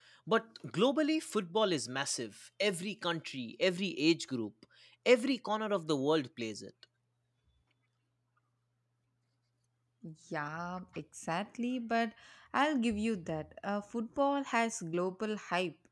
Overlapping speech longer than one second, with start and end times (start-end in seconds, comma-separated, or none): none